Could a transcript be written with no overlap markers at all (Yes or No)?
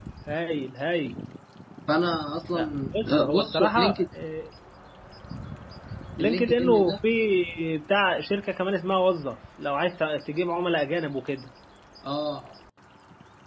No